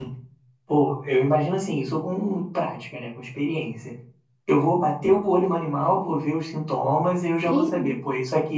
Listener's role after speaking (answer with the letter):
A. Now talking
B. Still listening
B